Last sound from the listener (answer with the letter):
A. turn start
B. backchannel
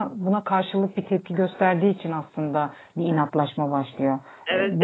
A